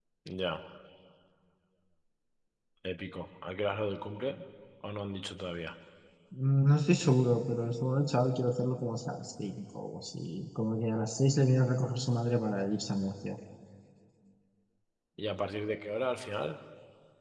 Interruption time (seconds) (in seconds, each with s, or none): none